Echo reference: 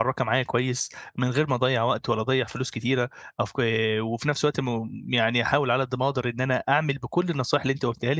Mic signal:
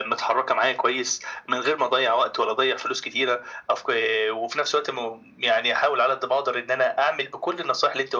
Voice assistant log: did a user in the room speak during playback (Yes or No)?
No